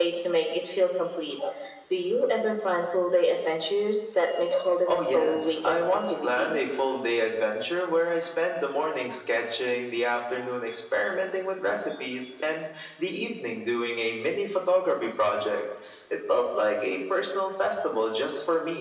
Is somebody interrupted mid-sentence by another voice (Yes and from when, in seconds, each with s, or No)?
Yes, from 4.9 s